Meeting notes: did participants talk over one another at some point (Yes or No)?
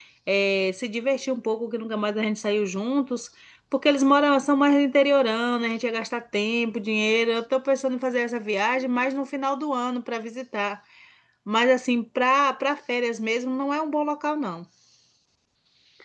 No